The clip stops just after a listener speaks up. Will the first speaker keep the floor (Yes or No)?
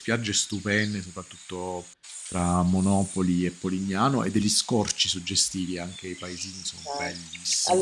No